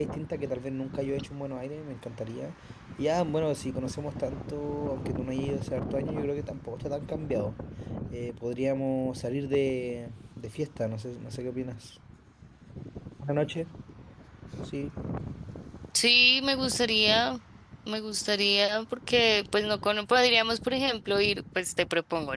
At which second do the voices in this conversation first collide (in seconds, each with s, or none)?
none